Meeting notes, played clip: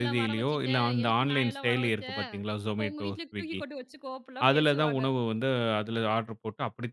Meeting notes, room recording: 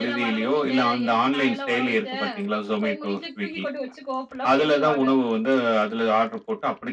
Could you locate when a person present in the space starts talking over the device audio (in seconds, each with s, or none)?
none